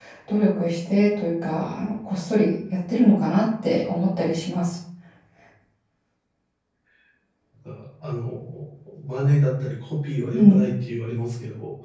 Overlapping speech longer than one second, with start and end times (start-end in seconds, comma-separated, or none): none